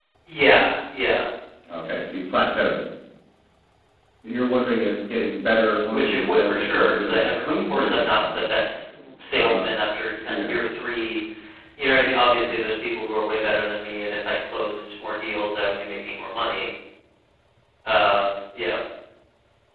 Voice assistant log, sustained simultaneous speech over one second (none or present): present